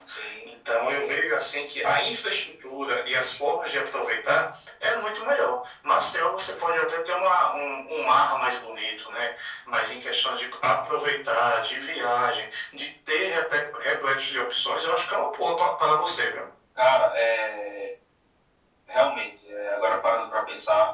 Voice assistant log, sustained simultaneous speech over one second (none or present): none